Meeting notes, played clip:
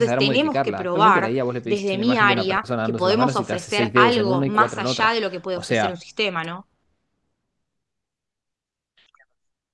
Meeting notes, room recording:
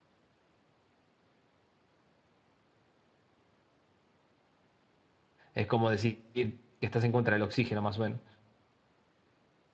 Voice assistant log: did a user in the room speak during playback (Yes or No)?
Yes